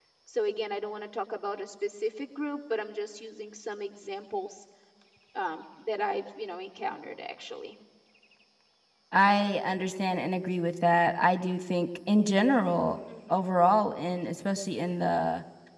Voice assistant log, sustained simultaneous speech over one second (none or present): none